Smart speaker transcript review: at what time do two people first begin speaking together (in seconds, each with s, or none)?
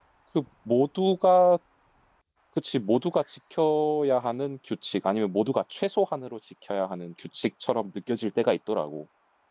none